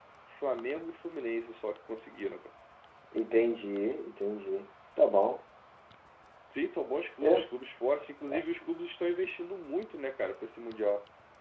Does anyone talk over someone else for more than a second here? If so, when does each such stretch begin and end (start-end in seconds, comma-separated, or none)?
none